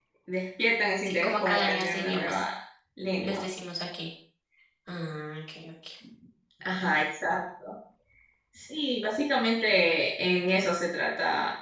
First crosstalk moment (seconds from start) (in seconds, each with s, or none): 1.0 s